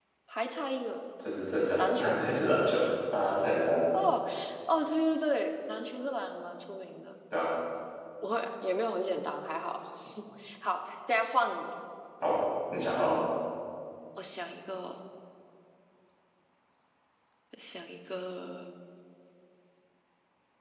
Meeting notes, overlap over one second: none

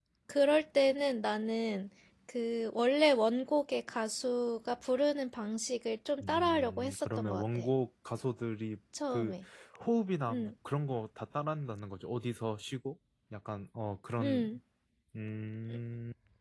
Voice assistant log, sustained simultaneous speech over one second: present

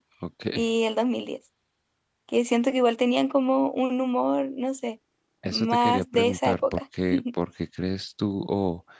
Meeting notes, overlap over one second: present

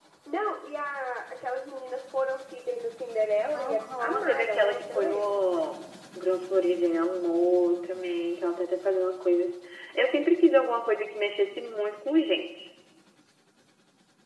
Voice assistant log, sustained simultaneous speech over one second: present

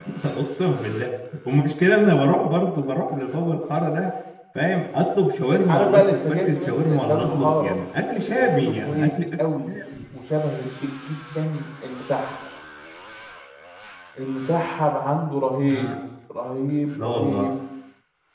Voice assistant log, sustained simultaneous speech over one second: present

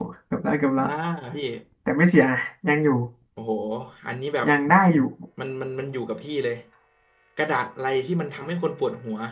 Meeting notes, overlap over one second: none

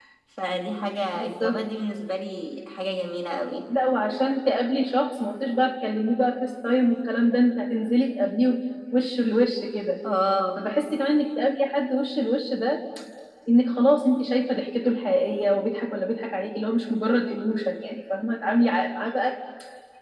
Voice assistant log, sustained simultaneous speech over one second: none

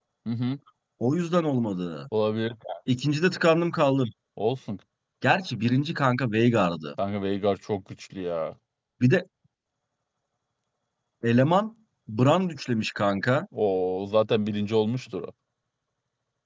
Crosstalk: none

